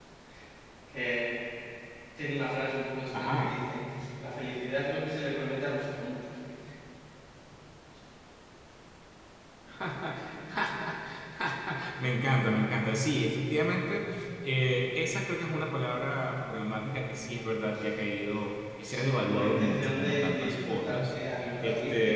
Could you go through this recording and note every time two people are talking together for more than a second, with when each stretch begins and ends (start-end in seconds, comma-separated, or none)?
18.9-21.1